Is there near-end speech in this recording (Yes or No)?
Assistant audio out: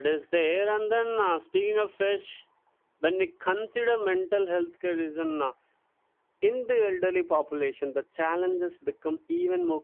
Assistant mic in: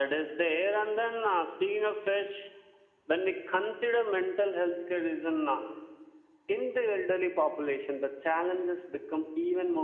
No